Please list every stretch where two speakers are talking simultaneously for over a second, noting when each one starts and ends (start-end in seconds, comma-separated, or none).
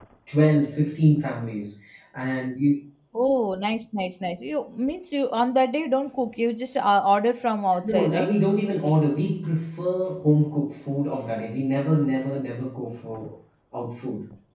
none